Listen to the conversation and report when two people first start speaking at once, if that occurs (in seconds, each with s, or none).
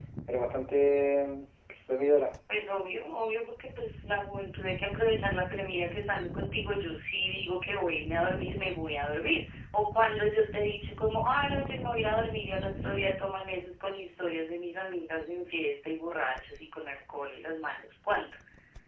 none